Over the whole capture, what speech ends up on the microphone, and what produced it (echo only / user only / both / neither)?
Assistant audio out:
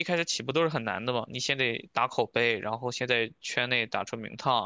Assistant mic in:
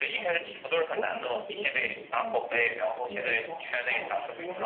both